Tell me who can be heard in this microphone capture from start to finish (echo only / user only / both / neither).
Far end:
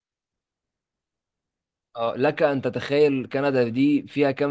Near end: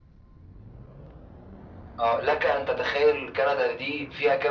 echo only